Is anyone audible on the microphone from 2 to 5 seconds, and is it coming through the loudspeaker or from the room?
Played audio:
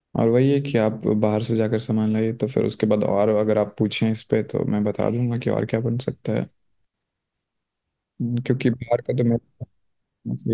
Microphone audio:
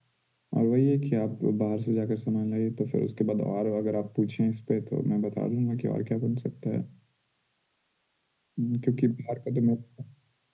echo only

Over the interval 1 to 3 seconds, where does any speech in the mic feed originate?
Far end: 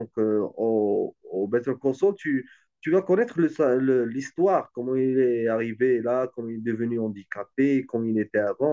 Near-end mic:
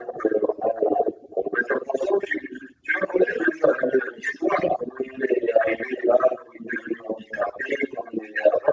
echo only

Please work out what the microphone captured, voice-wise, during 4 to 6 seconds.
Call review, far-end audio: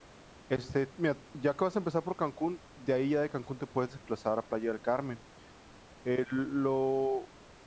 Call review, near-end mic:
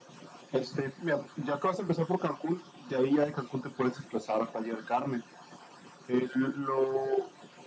echo only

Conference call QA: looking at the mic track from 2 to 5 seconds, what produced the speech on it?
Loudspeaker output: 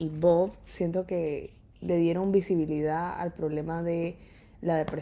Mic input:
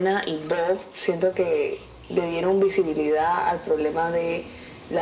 echo only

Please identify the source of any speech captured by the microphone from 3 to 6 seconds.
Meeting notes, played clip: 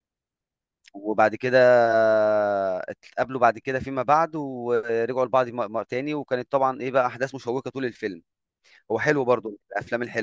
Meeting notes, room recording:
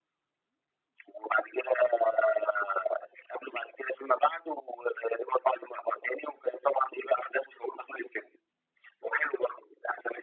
echo only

